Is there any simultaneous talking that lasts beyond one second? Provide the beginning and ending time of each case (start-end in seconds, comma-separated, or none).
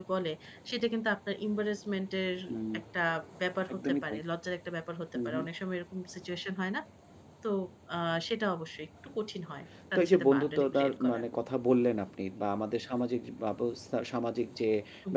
9.9-11.2